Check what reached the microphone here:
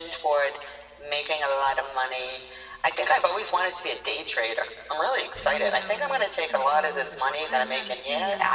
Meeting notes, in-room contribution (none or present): present